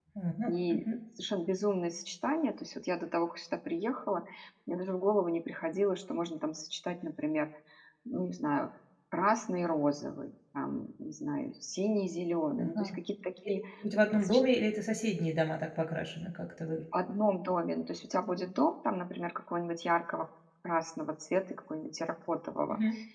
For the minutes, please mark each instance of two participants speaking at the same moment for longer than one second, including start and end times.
none

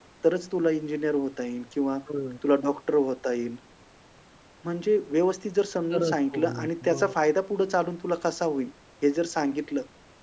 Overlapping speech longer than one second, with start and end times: 5.9-7.1

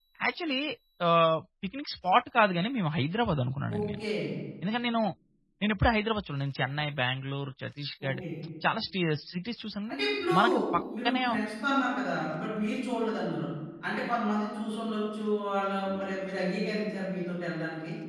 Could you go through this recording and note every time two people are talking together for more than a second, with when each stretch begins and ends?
none

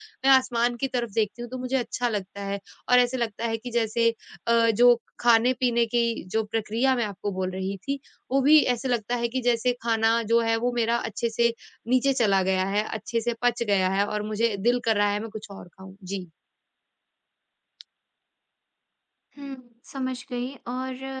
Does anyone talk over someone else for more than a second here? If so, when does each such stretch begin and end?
none

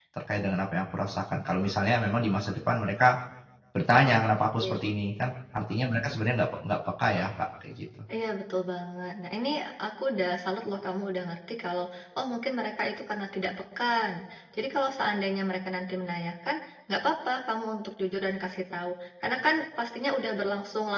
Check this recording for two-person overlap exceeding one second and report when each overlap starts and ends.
none

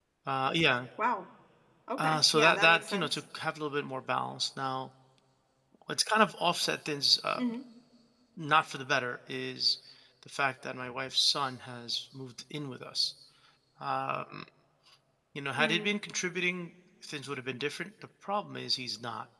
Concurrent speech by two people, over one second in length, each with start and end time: 2.0-3.2

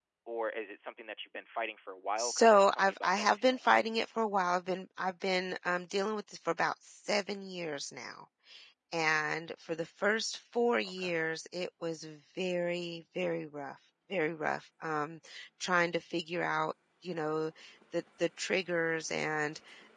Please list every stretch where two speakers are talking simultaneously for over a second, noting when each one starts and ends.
2.2-3.8

